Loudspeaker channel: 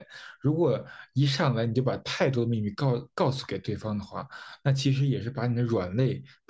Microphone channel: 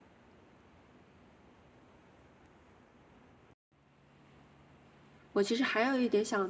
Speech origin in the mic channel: user only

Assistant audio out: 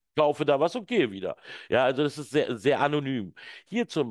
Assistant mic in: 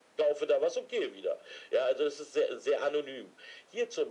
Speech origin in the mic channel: echo only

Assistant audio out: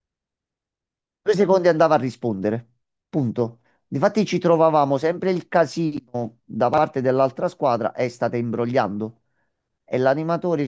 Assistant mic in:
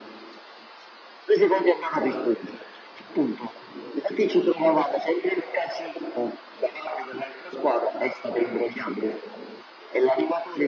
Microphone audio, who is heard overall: echo only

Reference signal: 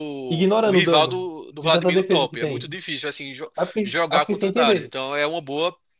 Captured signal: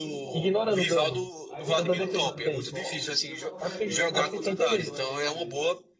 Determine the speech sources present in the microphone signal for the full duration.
both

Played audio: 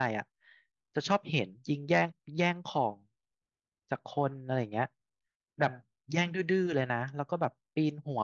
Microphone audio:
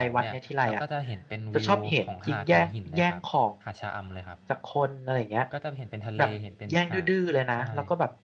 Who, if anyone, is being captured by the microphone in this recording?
both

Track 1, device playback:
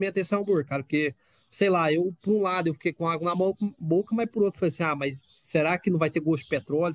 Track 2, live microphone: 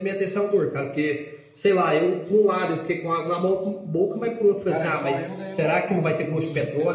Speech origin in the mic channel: both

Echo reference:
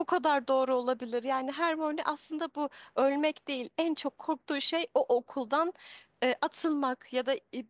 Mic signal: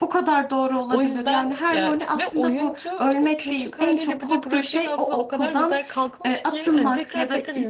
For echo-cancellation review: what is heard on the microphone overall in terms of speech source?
both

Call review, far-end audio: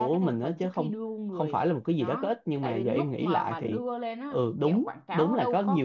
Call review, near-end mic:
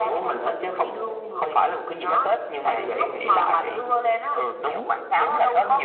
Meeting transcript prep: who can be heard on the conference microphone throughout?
echo only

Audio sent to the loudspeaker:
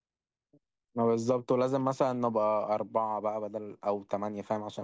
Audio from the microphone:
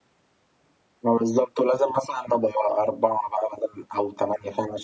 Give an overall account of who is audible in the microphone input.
echo only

